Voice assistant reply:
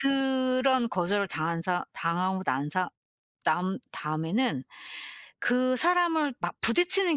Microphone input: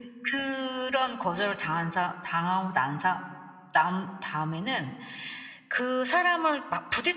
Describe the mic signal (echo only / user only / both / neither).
echo only